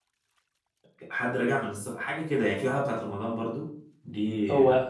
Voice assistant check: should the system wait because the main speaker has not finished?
No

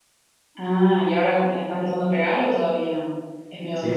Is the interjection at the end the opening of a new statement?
Yes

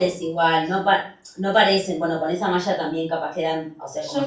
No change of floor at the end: No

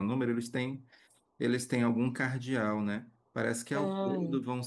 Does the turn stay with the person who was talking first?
Yes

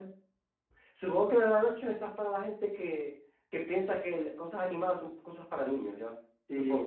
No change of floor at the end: No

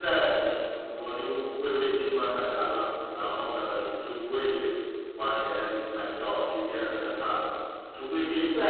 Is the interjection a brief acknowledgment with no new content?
Yes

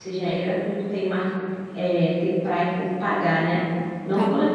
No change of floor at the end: Yes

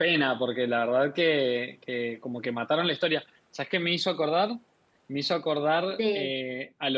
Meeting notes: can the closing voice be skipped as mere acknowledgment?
Yes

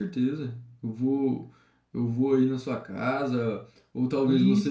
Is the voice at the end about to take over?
No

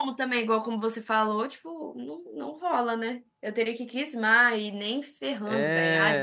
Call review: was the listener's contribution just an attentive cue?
No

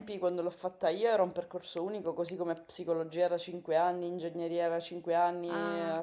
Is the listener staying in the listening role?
Yes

